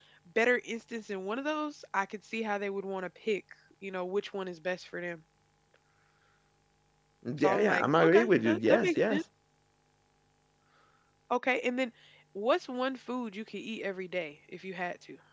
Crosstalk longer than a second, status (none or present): present